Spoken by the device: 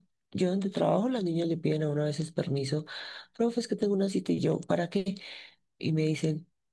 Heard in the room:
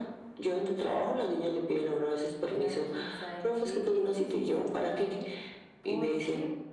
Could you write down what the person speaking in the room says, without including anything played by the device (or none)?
vea que sabe que esto sí está fallando, porque